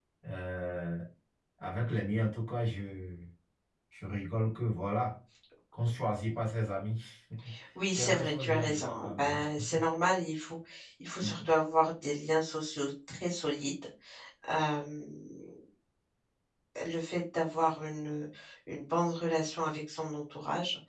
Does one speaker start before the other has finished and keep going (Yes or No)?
Yes